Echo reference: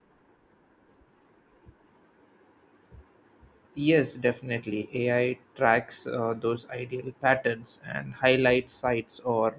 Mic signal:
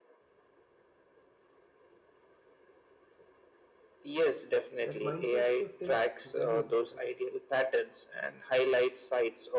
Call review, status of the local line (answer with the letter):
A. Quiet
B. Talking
B